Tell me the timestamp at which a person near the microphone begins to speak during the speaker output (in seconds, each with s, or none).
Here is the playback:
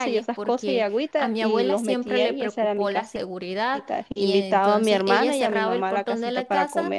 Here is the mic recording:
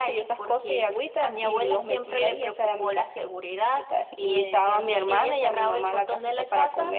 none